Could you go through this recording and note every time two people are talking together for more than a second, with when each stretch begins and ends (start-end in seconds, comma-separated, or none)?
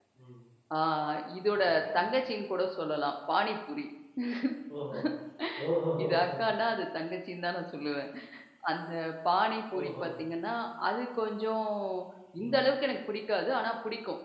none